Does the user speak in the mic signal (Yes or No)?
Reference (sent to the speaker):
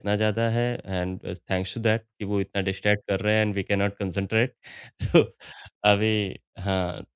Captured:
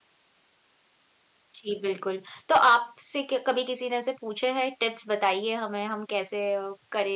Yes